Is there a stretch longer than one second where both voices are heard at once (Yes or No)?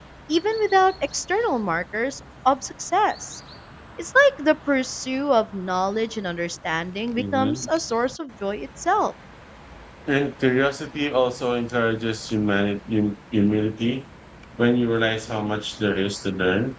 No